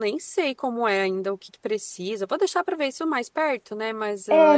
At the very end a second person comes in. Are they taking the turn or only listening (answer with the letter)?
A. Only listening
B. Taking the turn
B